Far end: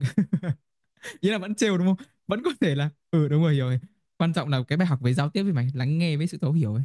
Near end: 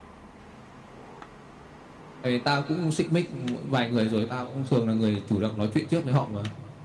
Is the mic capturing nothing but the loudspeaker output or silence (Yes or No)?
No